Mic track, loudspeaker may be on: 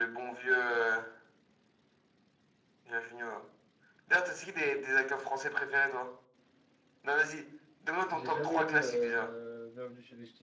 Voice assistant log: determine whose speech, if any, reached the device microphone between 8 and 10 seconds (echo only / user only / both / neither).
both